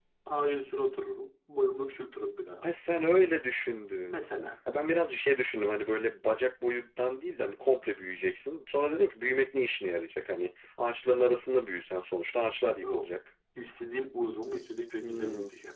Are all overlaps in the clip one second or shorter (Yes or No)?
Yes